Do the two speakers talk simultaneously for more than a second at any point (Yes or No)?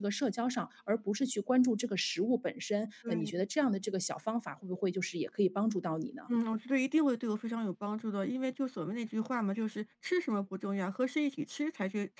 No